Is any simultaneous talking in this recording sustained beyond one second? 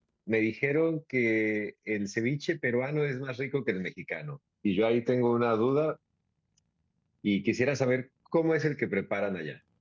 No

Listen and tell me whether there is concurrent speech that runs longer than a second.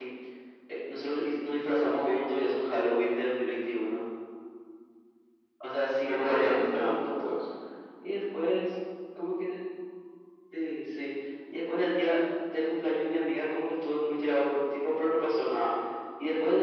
Yes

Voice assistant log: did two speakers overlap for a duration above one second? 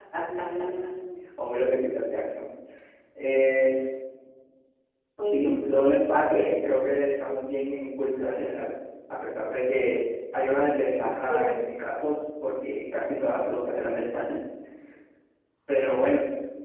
Yes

